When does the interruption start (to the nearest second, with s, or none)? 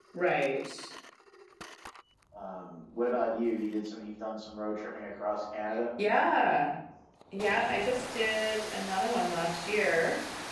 none